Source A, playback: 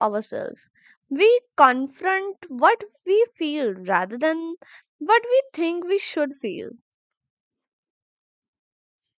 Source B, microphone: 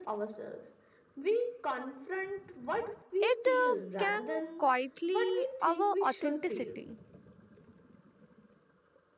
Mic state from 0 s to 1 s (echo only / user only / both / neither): echo only